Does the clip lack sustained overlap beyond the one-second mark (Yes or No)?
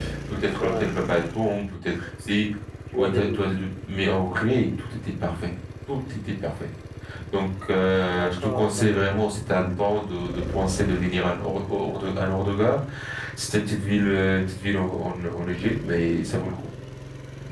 No